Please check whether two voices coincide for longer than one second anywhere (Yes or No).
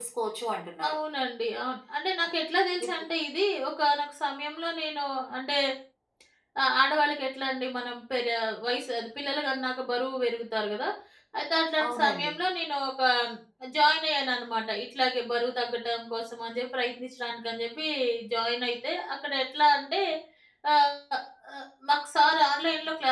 No